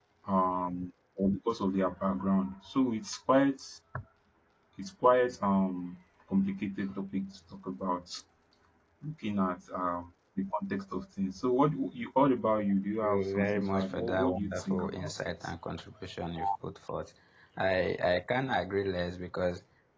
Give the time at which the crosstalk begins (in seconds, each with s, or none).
13.0 s